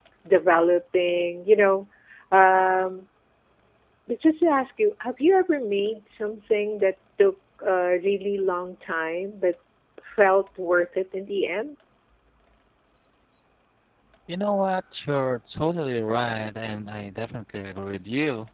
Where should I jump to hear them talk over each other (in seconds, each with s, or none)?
none